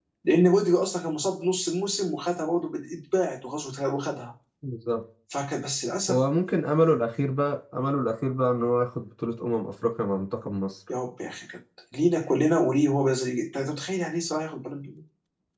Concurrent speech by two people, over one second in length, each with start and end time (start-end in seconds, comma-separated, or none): none